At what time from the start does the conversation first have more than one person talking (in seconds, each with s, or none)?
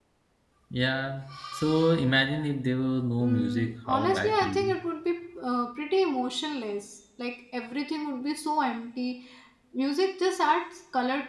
3.2 s